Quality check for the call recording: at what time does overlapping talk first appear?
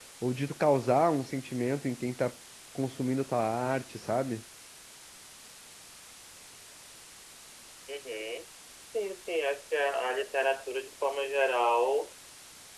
none

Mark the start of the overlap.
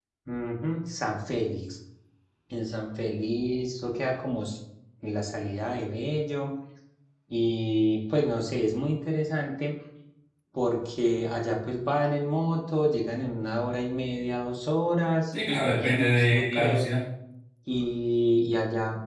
15.6 s

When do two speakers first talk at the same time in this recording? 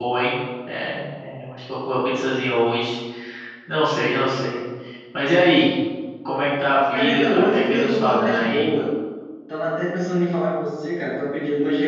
6.9 s

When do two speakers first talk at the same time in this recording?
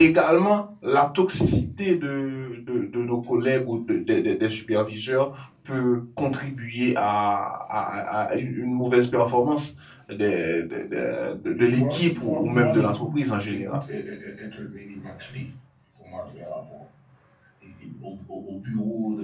11.5 s

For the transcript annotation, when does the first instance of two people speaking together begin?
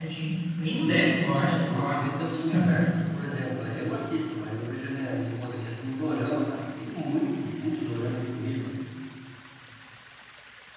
0.8 s

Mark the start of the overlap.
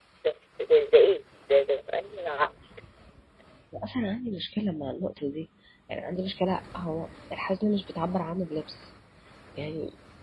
none

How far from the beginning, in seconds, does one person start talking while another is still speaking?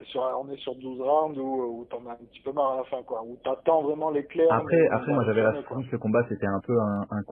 4.5 s

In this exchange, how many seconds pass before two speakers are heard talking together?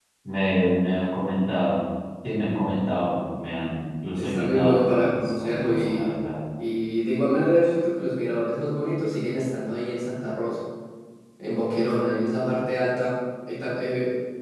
4.2 s

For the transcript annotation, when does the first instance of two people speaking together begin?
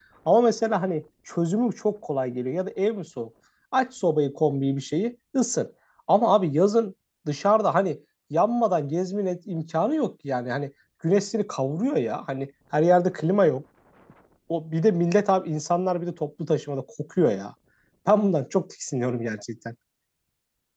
none

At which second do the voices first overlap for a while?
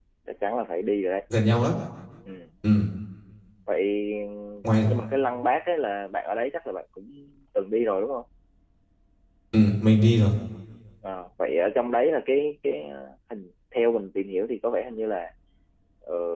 none

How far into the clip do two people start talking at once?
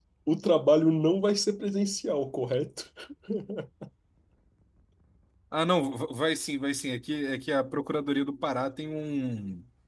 none

